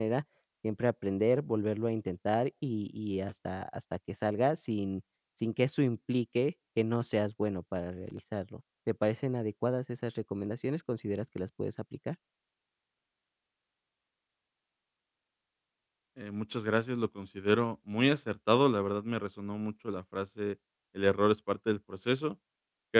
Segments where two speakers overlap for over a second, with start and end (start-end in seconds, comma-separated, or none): none